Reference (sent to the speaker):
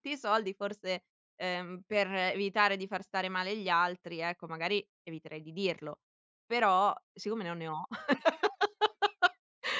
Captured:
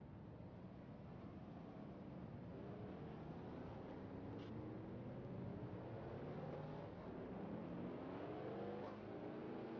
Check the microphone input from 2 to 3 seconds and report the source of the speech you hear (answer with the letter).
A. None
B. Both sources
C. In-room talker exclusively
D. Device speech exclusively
A